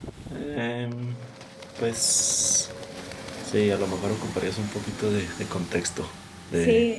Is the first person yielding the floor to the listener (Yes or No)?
Yes